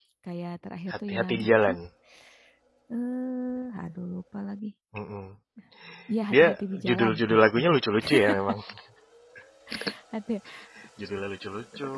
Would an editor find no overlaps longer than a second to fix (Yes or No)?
No